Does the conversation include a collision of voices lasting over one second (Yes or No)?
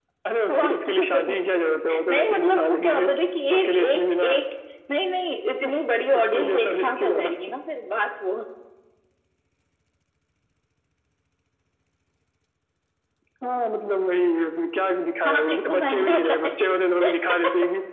Yes